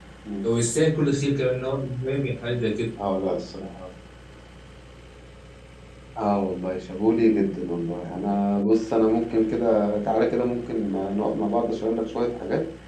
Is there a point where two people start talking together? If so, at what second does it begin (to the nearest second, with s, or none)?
none